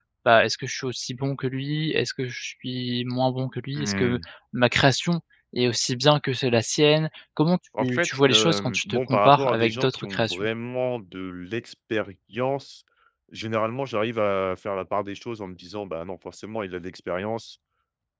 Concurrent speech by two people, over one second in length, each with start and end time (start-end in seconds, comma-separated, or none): 7.8-10.5